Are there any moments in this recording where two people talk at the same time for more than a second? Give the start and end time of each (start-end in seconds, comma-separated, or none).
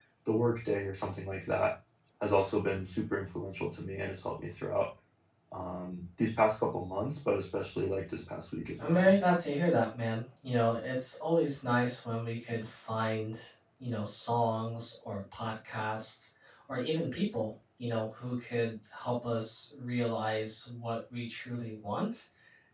none